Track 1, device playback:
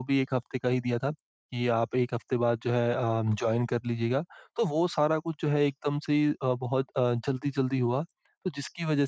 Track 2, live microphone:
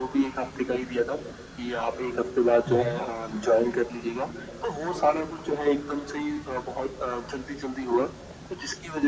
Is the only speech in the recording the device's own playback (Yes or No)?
No